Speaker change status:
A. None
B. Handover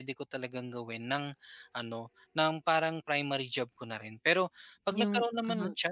A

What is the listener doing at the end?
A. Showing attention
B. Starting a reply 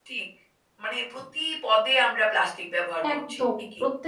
B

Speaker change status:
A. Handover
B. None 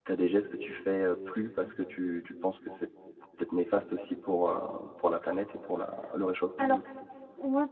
A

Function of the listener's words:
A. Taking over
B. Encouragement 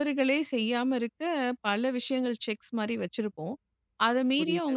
B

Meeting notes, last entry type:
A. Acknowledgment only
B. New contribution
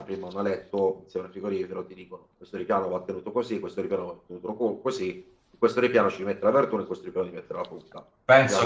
B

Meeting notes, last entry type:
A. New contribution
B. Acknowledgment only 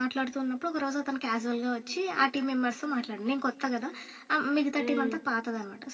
B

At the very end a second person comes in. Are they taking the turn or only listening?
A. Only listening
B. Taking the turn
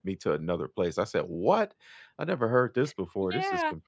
B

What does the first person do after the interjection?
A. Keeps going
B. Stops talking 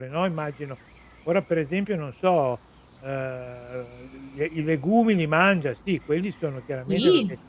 A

